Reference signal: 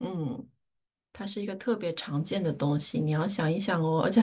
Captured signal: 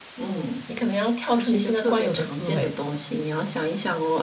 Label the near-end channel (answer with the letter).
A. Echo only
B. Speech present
B